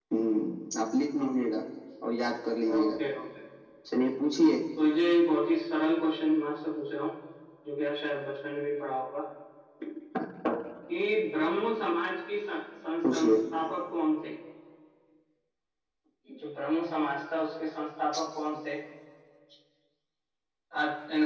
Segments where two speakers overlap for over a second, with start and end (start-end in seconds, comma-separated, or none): none